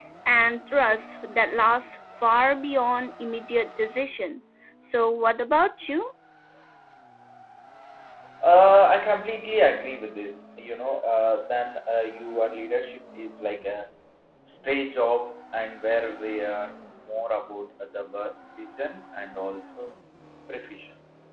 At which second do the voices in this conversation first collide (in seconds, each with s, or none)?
none